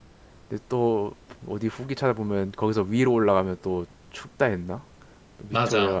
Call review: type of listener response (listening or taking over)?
taking over